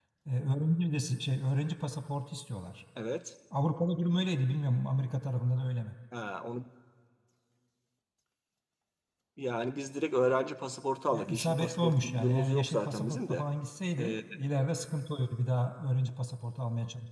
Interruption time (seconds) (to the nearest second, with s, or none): 11 s